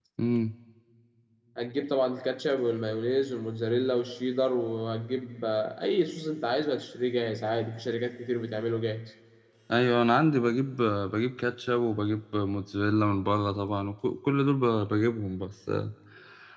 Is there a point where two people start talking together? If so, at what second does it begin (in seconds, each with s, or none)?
none